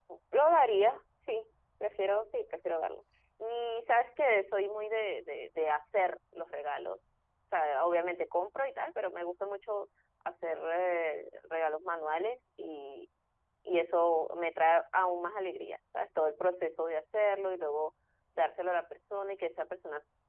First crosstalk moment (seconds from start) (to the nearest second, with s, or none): none